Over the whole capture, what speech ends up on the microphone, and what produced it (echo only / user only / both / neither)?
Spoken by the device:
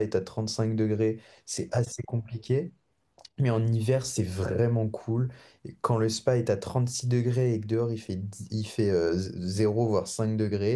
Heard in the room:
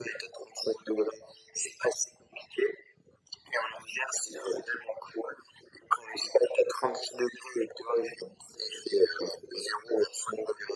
echo only